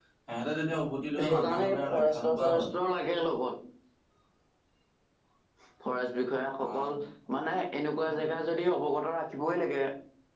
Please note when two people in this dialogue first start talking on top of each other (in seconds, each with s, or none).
1.3 s